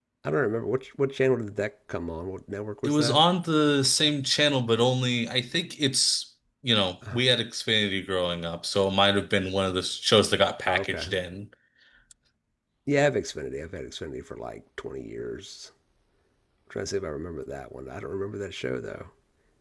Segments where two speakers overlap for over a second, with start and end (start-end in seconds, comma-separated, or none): none